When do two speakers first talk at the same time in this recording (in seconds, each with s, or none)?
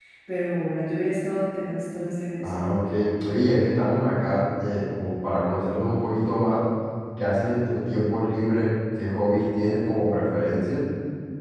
none